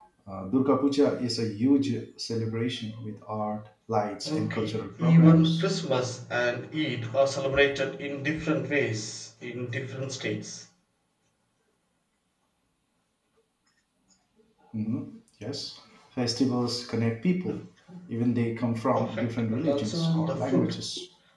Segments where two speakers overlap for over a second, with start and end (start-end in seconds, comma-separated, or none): 4.2-5.7, 18.9-20.8